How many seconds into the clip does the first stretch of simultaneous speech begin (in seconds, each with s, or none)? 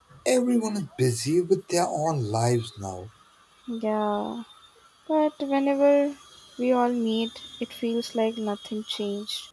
none